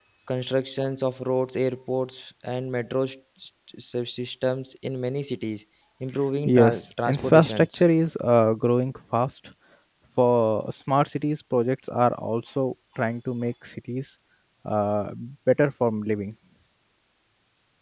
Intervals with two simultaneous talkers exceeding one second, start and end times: 6.5-7.7

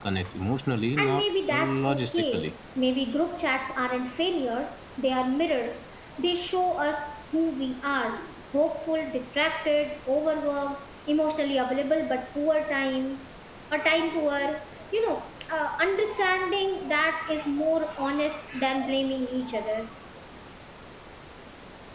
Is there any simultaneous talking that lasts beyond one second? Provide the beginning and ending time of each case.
1.0-2.5

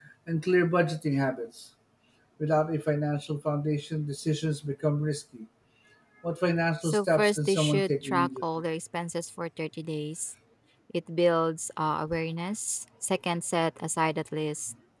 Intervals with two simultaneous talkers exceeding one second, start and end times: 6.8-8.4

